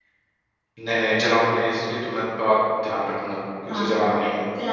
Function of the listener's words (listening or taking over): taking over